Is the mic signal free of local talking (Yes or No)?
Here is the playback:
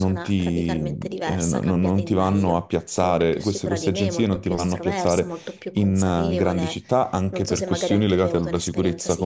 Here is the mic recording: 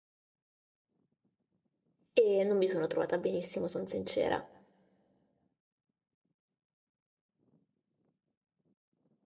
No